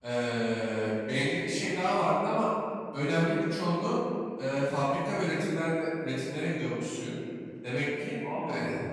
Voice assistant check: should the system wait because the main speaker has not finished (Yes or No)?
Yes